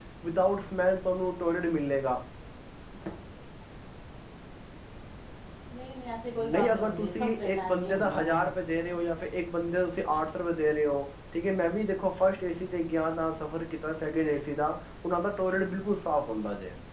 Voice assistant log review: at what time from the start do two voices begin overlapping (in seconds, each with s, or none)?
6.3 s